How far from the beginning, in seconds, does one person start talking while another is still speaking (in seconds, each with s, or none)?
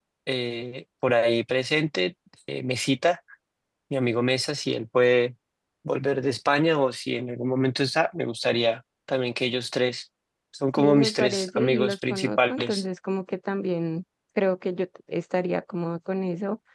10.8 s